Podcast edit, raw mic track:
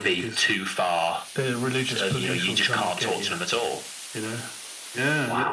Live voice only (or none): none